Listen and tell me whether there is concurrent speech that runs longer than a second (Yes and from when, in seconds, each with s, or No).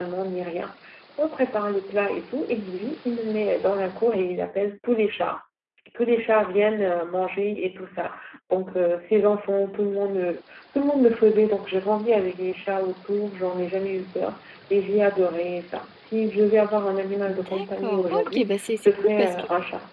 Yes, from 17.3 s